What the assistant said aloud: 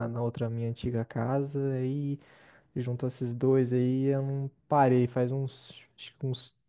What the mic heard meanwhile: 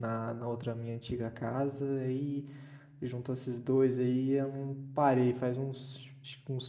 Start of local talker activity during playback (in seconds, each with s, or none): none